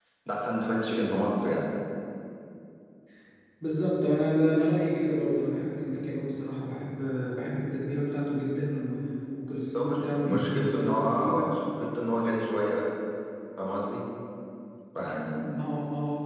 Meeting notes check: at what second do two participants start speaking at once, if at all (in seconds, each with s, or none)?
9.7 s